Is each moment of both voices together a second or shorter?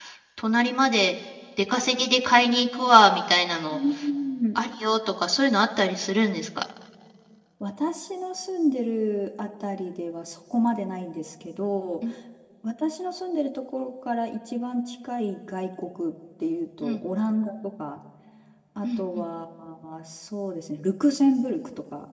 Yes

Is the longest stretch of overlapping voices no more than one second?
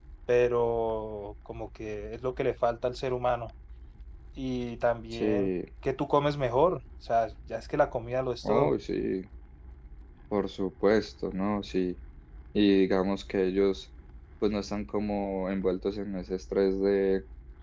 Yes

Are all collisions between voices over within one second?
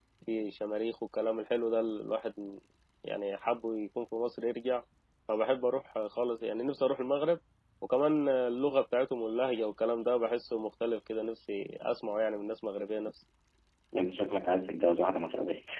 Yes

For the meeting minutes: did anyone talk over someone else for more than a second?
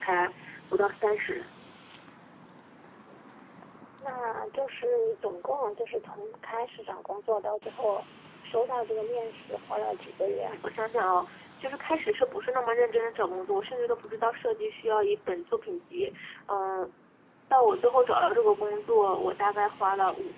No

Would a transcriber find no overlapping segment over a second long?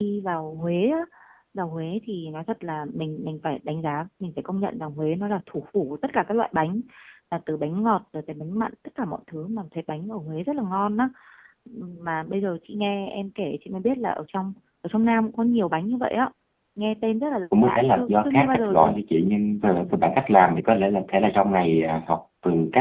No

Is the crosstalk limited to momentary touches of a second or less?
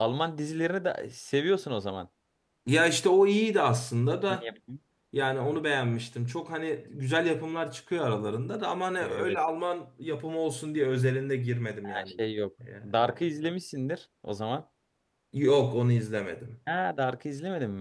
Yes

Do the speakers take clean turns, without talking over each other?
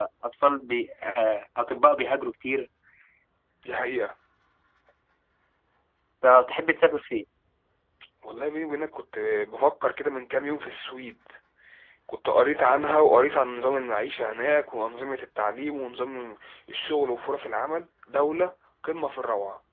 Yes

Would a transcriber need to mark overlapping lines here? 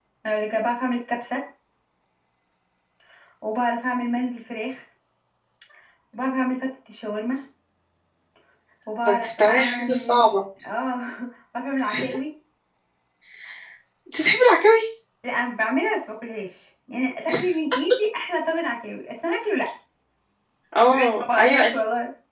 Yes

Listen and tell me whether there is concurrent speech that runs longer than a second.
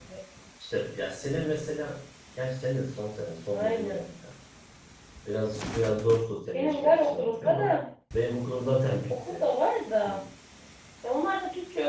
Yes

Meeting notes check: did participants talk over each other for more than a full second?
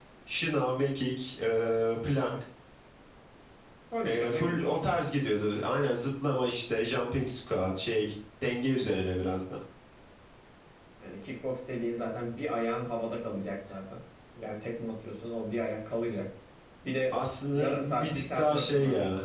Yes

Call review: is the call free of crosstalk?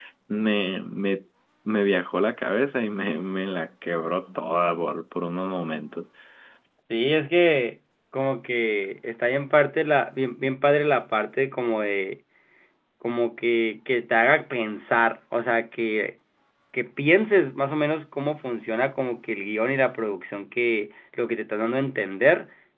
Yes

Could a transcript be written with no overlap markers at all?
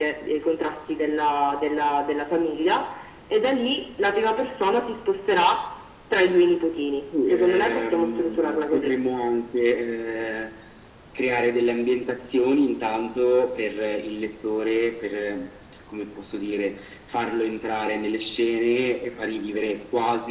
No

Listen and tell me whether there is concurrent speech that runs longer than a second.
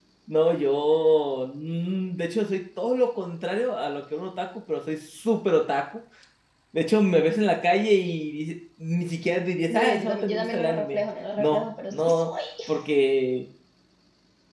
Yes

